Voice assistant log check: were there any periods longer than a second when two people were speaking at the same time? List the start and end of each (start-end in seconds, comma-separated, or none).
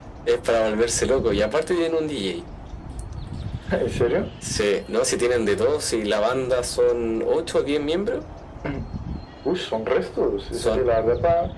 none